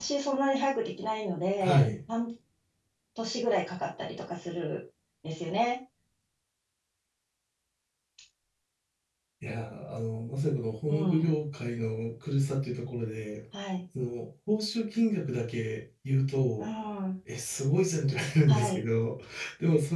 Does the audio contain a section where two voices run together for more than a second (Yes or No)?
No